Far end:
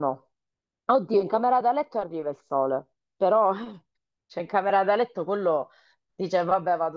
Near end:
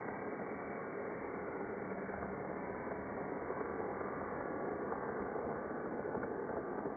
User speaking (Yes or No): No